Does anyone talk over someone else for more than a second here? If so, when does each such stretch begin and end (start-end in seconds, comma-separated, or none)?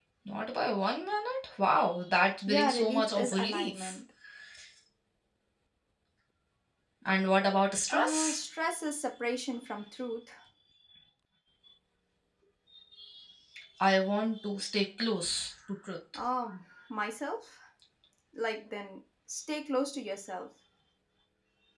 2.5-4.0